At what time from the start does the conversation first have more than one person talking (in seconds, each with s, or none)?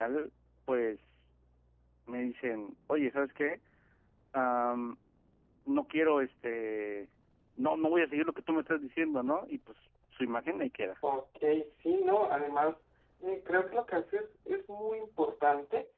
none